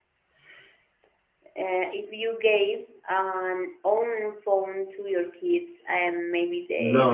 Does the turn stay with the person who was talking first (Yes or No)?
No